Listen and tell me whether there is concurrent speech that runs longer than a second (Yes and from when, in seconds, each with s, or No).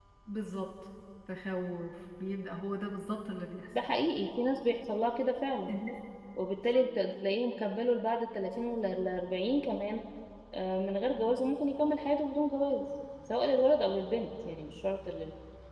No